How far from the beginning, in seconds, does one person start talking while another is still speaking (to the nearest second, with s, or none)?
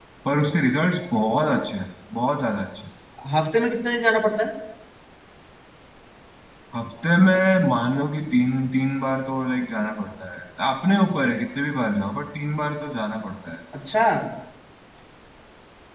none